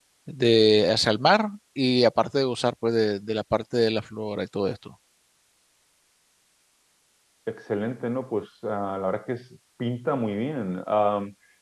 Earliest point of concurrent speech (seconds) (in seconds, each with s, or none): none